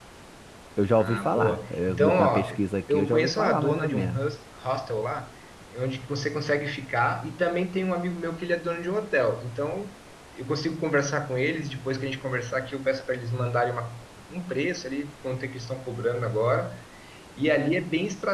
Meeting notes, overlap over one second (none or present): present